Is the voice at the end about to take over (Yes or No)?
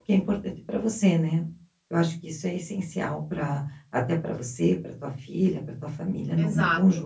Yes